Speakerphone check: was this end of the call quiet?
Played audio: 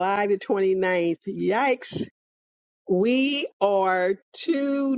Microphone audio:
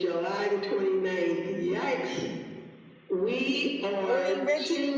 No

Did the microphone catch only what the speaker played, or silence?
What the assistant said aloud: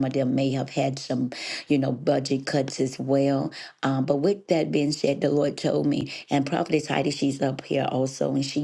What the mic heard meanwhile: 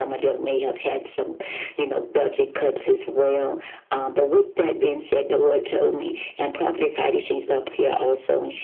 Yes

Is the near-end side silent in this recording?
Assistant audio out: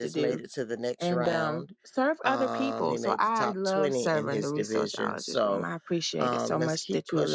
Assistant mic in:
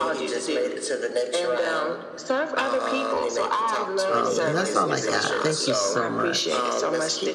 No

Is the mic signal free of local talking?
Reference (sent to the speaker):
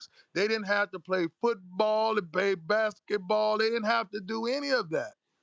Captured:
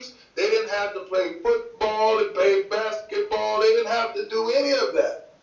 Yes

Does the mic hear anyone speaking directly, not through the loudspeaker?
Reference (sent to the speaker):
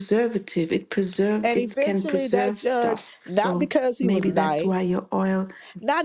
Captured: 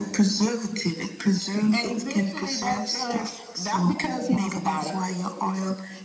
No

